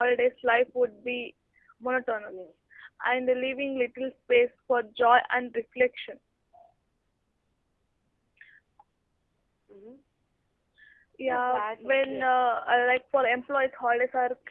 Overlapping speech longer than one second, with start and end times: 11.3-12.5

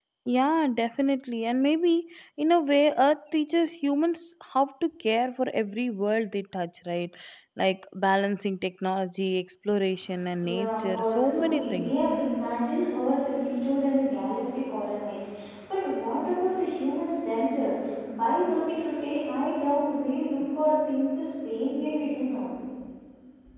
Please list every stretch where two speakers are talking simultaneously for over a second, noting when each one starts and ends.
10.5-11.9

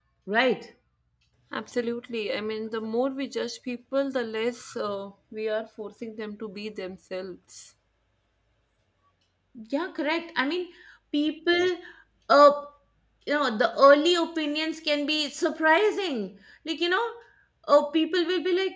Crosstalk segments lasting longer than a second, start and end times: none

